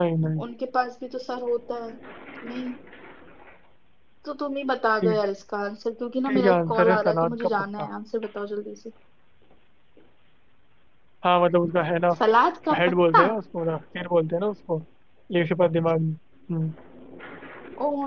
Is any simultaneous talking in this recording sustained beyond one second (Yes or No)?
Yes